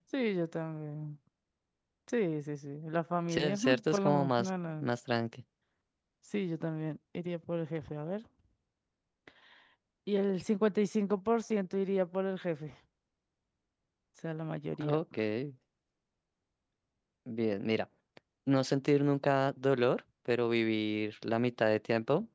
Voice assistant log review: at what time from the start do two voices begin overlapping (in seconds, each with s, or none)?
3.3 s